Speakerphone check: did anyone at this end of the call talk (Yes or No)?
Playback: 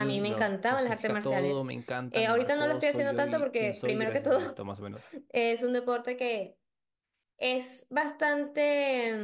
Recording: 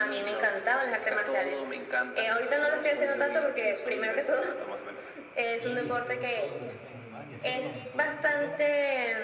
Yes